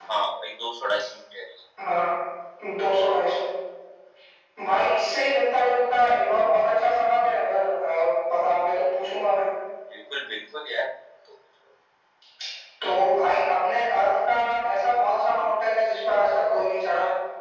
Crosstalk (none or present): none